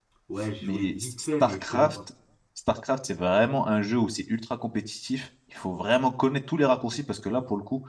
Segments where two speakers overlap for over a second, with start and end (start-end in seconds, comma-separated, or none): 0.6-2.0